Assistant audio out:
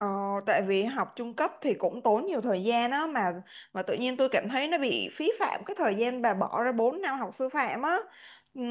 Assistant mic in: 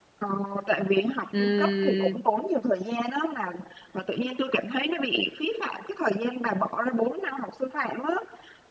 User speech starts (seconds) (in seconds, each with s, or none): 1.3 s